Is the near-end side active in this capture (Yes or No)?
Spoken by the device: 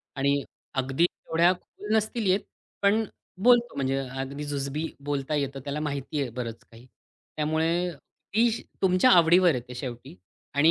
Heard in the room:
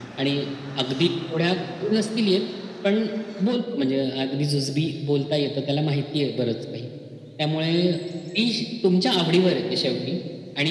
No